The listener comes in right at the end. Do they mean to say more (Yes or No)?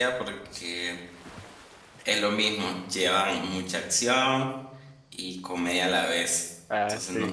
No